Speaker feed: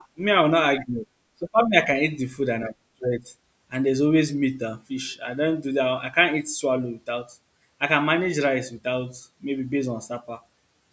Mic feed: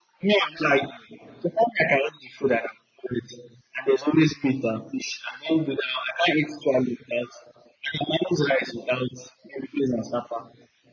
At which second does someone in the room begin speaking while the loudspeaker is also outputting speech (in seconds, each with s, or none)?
none